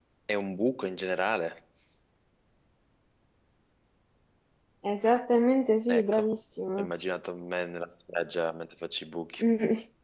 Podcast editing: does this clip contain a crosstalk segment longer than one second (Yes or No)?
No